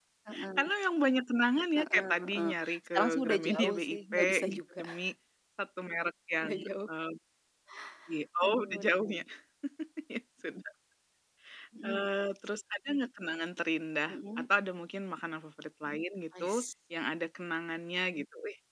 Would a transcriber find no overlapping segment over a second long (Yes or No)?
No